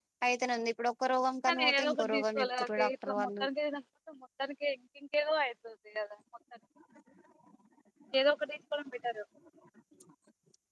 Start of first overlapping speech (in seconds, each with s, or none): 1.5 s